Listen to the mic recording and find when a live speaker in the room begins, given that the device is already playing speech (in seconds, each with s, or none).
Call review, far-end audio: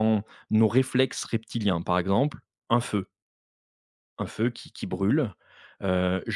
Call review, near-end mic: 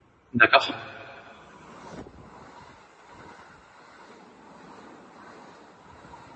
0.3 s